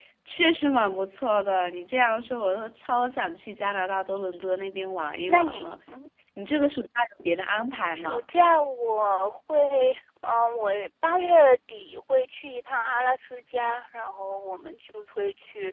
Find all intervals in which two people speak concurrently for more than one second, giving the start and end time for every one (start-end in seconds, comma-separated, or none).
none